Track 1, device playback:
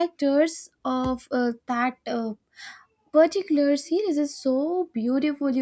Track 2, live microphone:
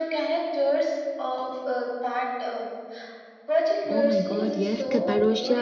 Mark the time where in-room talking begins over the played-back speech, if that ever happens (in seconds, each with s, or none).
3.9 s